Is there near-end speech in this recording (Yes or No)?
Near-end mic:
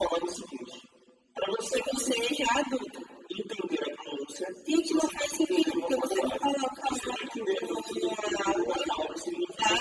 No